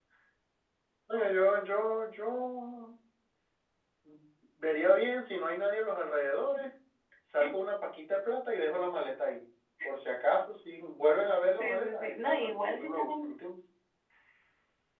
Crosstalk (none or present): present